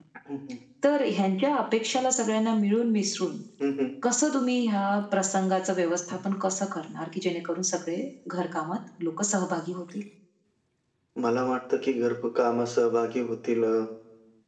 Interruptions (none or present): none